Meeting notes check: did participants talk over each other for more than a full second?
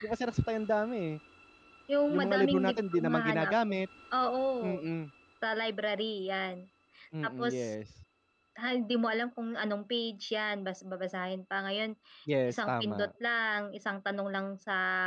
Yes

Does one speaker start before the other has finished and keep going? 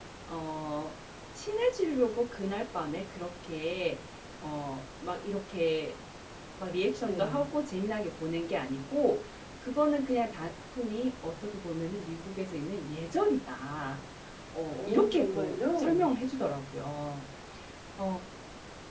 Yes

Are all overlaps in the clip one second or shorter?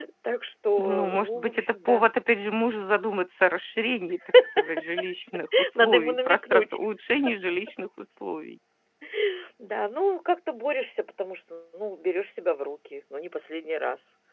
No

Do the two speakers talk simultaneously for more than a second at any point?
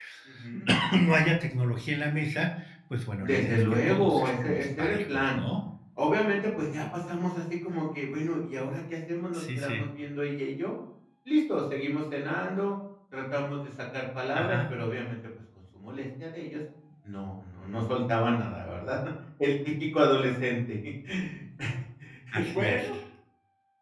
Yes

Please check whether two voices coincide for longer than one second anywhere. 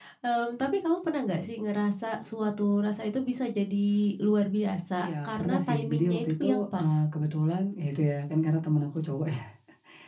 Yes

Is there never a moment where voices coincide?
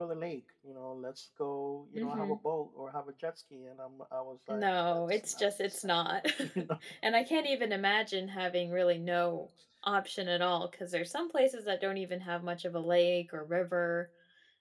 No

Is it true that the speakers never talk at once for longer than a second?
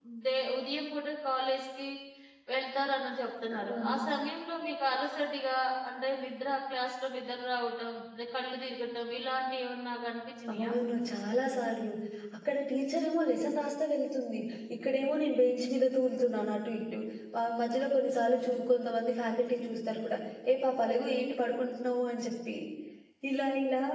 Yes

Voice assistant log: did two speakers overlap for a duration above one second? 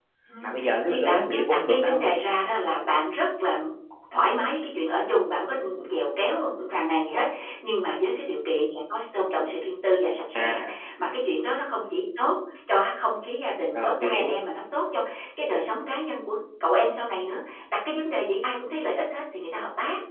Yes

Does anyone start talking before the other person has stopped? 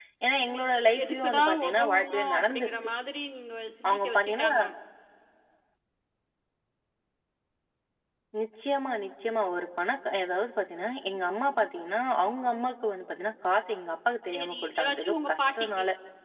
Yes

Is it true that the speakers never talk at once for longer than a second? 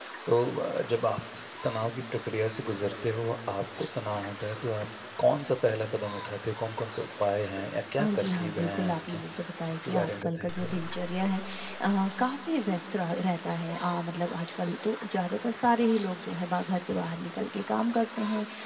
No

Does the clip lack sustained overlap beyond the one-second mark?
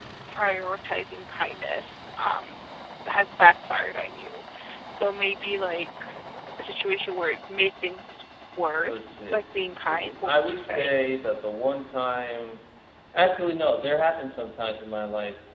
No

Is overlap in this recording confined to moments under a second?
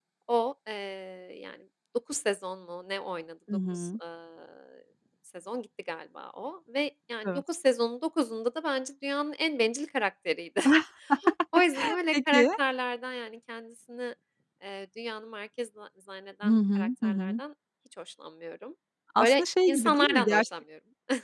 No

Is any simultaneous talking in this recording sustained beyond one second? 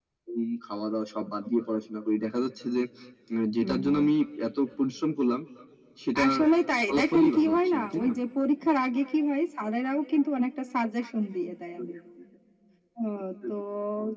Yes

